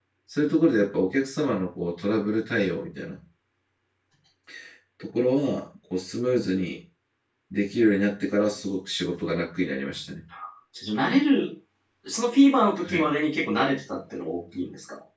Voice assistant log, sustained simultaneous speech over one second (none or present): none